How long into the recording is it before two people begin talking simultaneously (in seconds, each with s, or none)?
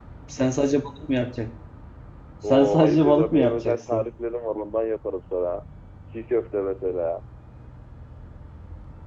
2.5 s